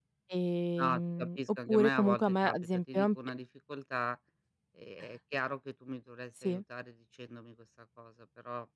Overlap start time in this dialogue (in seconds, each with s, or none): 0.8 s